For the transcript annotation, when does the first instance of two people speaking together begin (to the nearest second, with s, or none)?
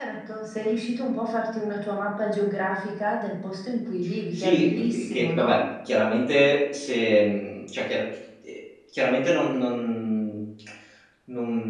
4 s